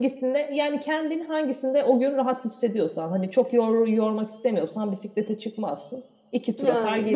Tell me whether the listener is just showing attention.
No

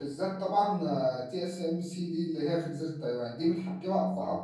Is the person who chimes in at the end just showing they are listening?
Yes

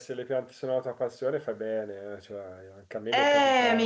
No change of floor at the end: No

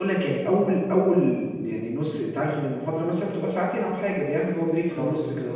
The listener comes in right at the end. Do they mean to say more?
No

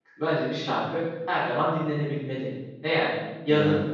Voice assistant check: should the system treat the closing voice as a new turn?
No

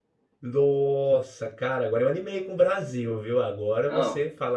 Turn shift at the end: No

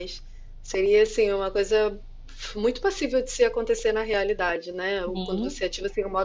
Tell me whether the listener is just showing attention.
Yes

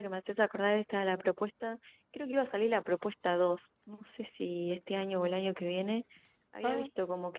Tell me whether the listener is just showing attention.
Yes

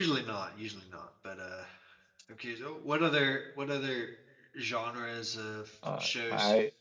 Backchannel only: No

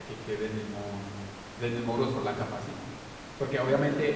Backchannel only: Yes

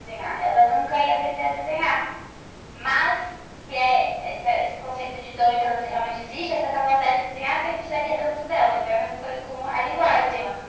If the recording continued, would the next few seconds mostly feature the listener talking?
Yes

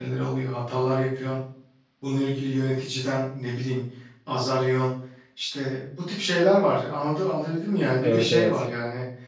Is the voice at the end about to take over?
No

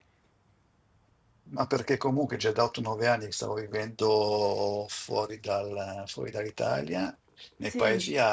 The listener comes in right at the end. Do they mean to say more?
No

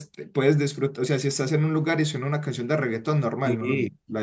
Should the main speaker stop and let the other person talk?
Yes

